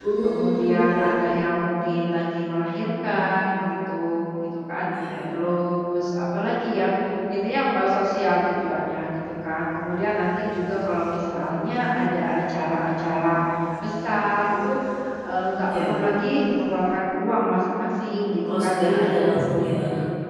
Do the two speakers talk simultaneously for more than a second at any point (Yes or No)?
Yes